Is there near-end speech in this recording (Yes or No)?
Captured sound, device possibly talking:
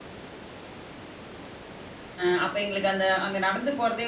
Yes